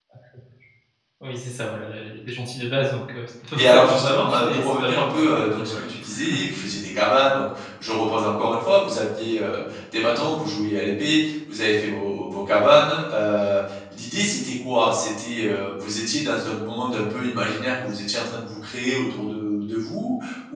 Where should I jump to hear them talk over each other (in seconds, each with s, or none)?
3.5 s